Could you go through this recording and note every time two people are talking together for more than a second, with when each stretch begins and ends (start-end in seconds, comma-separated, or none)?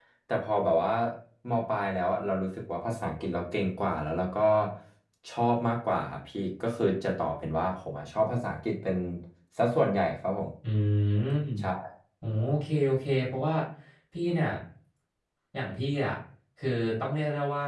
none